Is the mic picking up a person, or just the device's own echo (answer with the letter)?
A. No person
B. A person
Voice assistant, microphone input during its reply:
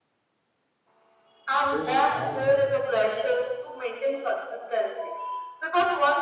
B